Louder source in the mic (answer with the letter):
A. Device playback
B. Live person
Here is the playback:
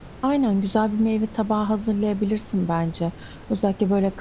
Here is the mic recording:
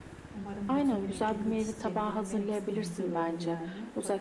A